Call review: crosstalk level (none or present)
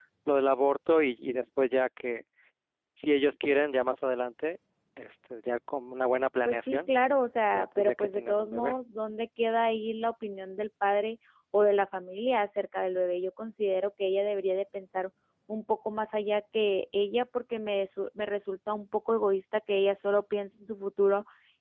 present